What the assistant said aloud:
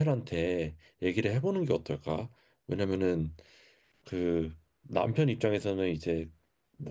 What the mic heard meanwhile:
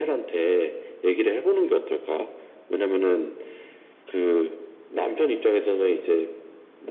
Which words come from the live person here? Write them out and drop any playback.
none

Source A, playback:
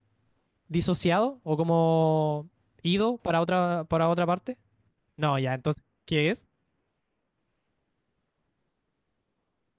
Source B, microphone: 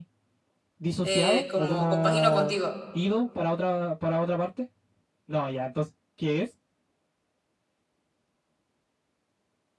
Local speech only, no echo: eh, como compagino contigo,

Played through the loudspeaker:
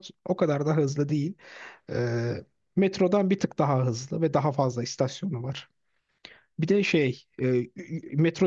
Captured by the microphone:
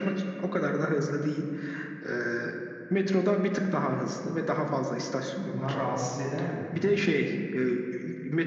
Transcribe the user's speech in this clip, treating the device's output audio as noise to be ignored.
Bunlar rahatsız eder mi böyle?

